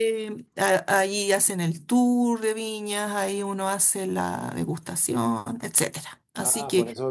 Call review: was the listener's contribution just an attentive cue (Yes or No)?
No